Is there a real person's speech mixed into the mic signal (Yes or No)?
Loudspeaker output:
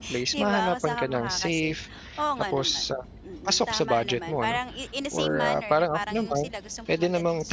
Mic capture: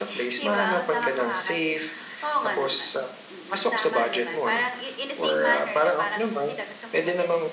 No